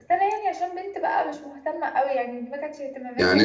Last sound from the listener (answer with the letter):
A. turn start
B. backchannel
A